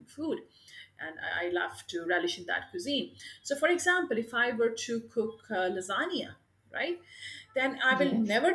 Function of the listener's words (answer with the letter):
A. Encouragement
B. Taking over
A